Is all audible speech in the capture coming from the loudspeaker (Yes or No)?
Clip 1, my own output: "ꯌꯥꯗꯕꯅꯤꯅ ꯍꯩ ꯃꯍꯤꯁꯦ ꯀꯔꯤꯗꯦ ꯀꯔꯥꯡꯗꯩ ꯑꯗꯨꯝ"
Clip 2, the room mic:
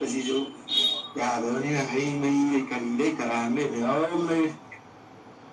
Yes